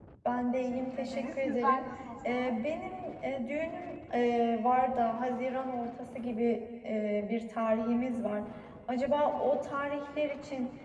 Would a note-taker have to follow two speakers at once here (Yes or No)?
Yes